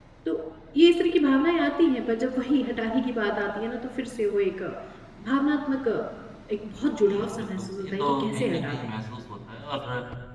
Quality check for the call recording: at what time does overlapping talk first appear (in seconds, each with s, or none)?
7.0 s